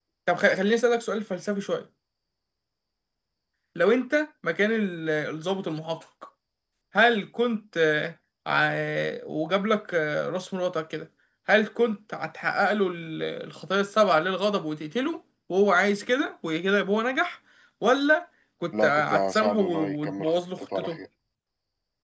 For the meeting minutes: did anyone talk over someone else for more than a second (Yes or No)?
Yes